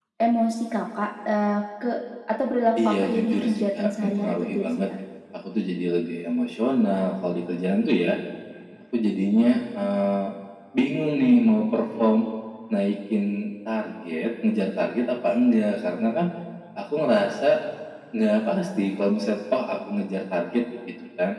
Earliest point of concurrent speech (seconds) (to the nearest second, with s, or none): 3 s